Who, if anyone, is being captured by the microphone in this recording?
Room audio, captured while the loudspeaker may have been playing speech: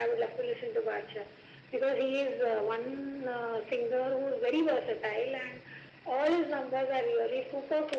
echo only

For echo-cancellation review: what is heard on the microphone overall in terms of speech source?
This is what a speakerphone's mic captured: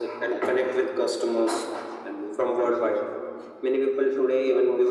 echo only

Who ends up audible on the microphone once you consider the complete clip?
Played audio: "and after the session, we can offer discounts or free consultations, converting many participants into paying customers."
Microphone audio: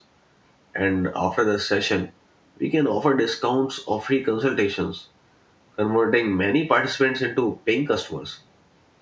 echo only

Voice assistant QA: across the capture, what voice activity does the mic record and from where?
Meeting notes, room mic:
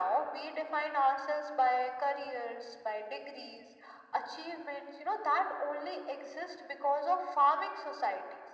echo only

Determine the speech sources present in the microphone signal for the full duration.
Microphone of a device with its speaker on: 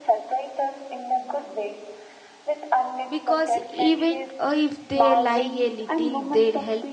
both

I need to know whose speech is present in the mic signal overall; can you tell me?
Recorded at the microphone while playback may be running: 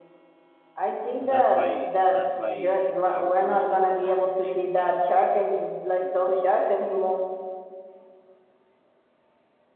both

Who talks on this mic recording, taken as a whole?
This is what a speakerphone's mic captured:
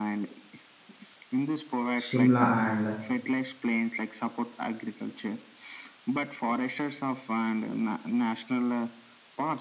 both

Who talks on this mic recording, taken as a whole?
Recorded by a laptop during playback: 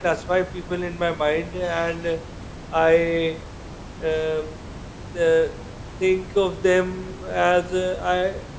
user only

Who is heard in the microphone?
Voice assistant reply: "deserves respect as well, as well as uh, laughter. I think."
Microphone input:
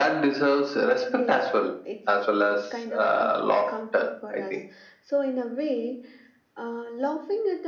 both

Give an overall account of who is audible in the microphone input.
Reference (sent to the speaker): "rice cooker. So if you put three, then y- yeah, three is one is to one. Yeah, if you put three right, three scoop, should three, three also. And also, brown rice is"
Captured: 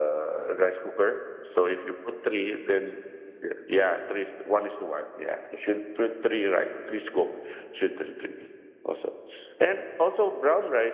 echo only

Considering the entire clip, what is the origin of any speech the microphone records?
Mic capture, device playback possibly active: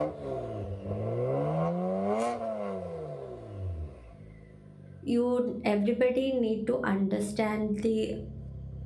user only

